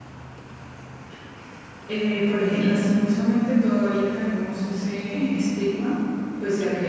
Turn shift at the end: No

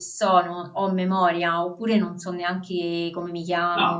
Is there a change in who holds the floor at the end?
Yes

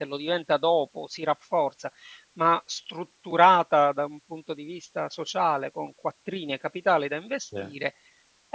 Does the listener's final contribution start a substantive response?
No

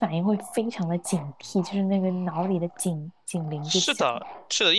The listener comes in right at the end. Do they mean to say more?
Yes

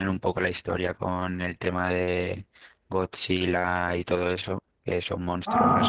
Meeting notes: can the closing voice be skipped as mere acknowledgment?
Yes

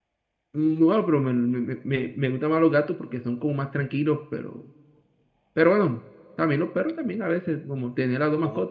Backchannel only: No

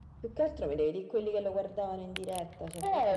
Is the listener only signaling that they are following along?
No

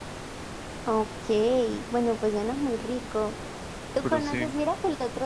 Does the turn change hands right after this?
No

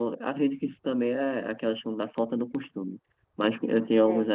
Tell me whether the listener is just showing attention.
Yes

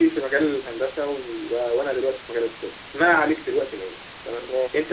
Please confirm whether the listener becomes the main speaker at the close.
No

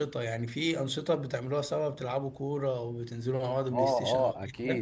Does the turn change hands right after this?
Yes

